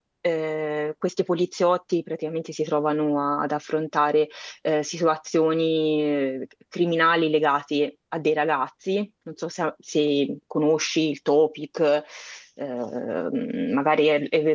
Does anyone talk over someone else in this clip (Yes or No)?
No